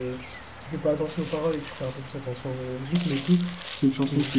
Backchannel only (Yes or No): Yes